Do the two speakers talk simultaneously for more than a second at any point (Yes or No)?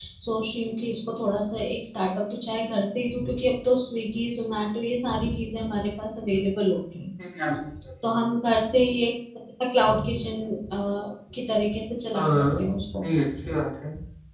No